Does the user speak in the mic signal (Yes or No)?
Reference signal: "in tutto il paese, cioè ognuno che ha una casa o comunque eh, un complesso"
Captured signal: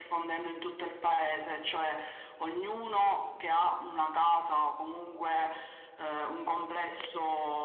No